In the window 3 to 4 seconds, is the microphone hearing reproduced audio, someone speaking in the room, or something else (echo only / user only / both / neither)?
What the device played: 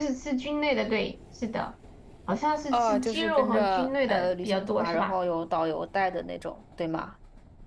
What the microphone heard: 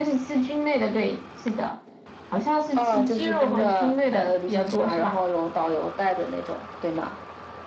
echo only